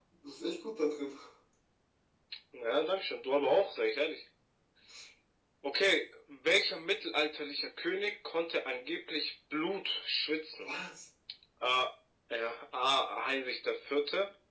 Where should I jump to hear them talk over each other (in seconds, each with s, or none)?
none